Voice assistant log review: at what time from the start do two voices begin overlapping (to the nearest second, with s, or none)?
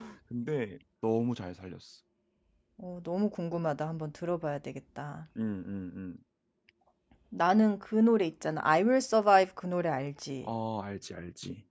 none